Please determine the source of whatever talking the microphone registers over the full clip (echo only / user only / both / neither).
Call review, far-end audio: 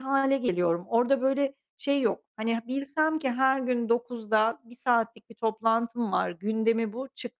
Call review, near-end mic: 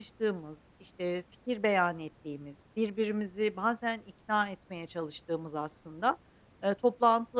user only